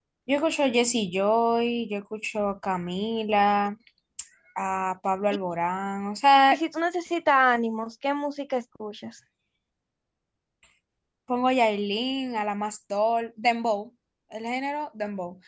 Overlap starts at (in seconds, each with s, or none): none